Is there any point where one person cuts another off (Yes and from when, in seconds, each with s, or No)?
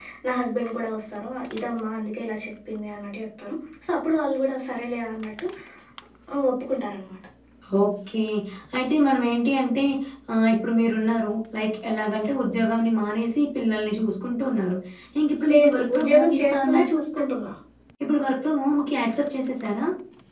Yes, from 15.5 s